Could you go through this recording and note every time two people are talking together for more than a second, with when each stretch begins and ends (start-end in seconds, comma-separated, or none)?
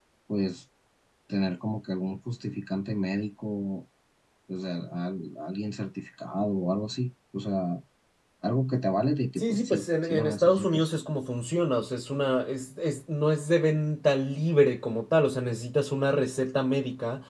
9.4-10.9